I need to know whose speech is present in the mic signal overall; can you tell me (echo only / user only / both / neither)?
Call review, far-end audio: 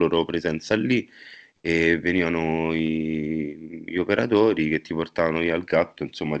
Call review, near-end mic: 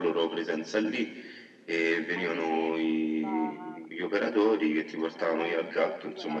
both